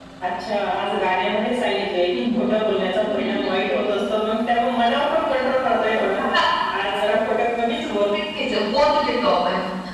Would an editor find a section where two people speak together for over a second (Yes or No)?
No